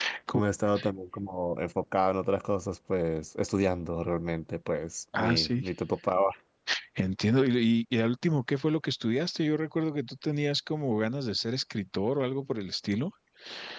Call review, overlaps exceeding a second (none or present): none